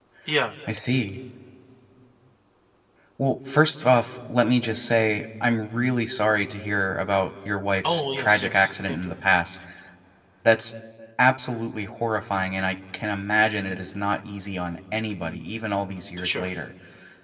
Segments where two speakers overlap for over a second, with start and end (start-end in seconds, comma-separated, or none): 7.8-9.1